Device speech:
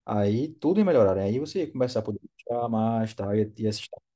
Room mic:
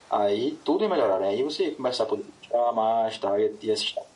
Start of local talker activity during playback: none

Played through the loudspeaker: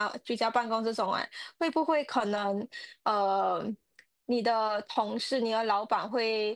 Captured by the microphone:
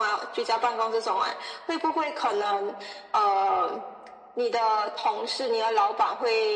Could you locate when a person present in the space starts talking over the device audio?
none

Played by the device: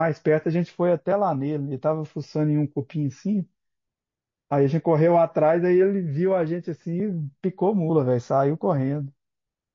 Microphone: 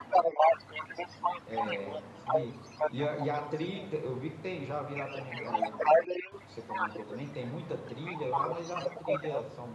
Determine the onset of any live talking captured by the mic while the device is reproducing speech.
1 s

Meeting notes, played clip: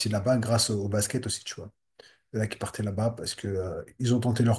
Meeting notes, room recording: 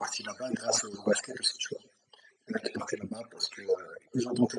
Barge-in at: none

